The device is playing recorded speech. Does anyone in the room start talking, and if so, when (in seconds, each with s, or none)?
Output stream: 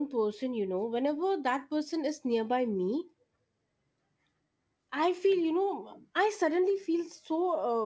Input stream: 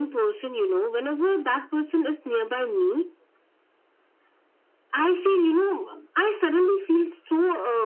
none